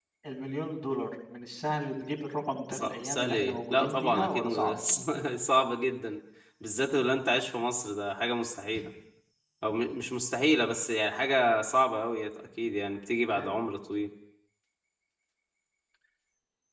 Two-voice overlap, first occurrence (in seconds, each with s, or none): 2.7 s